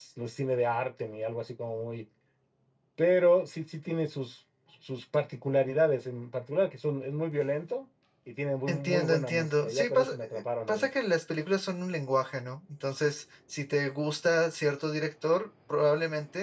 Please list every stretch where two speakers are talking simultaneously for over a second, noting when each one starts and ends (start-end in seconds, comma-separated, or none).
8.7-10.9